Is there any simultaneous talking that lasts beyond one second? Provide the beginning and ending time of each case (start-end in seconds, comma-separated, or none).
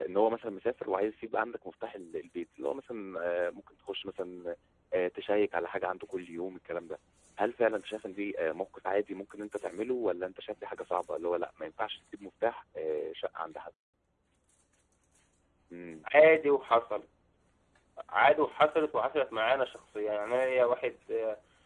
none